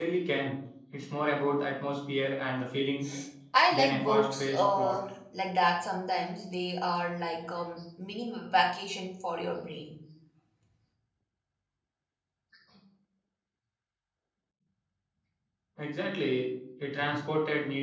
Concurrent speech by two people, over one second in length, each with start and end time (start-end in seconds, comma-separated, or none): 3.7-5.0